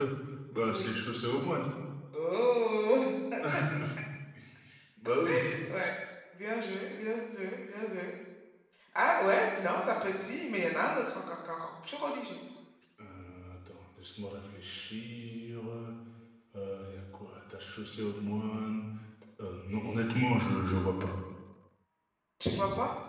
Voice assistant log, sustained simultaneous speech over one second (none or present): none